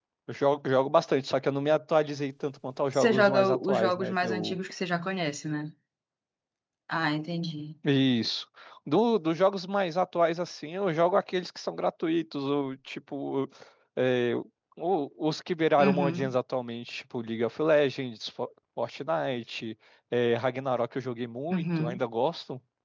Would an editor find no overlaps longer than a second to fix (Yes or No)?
No